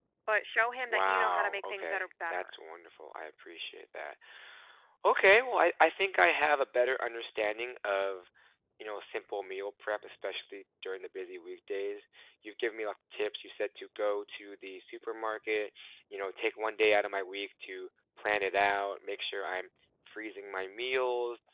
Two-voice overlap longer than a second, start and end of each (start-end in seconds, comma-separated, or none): 0.9-2.5